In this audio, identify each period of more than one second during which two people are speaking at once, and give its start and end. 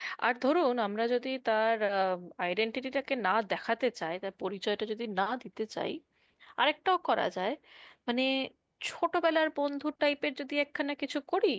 none

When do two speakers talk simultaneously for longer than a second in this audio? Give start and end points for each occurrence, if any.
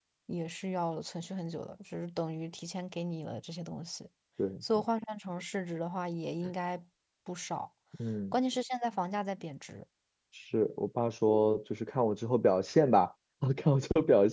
none

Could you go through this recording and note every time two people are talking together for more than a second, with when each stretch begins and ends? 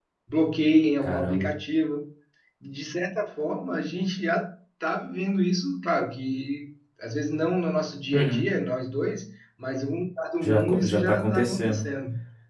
10.4-11.8

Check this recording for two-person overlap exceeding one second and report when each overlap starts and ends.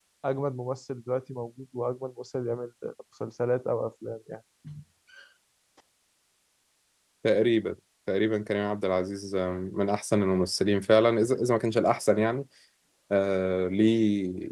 none

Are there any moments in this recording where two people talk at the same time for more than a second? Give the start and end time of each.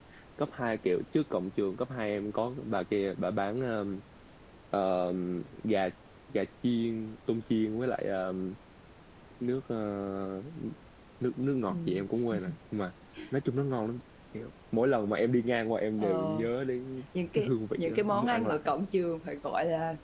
17.4-18.6

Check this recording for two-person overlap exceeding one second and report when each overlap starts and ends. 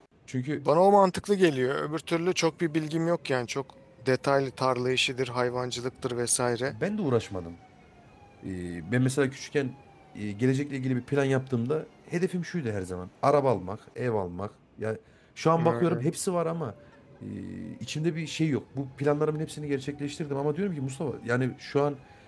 none

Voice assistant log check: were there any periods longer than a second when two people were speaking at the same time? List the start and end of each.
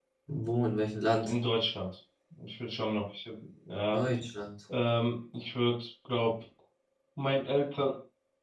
none

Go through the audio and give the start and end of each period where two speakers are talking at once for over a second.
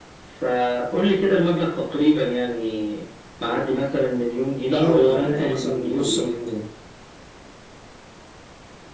4.6-6.3

